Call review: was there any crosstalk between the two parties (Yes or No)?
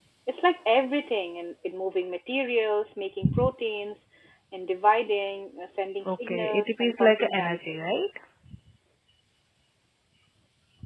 Yes